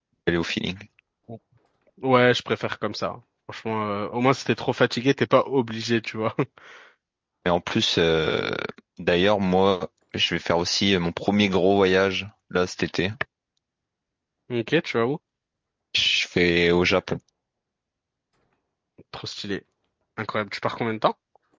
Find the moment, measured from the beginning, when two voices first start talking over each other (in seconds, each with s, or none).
none